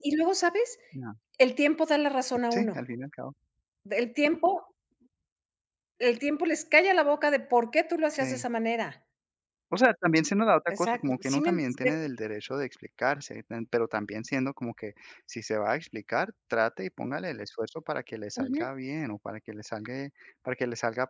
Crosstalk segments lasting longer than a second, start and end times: 10.7-11.9

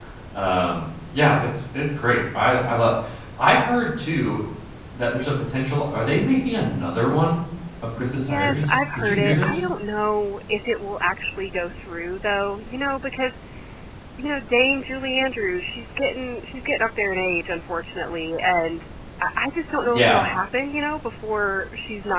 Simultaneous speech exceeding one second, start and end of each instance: 8.1-9.6

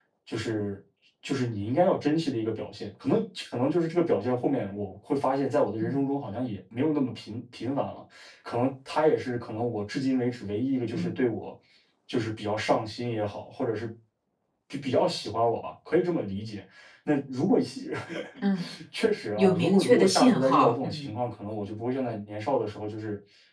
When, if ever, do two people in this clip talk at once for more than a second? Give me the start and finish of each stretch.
19.4-21.1

